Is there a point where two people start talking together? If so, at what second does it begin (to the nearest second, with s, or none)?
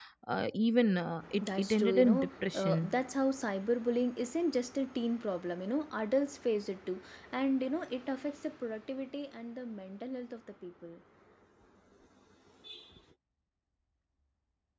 1 s